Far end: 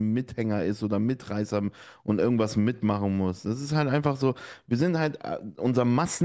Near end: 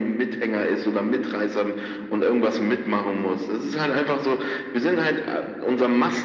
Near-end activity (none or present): none